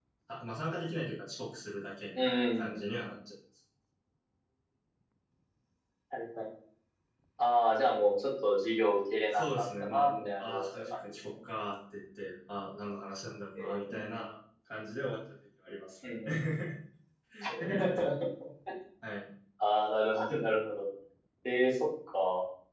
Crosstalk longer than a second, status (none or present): present